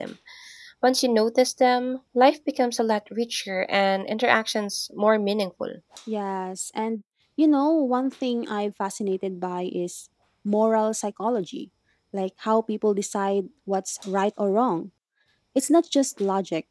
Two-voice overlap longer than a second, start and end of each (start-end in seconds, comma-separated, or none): none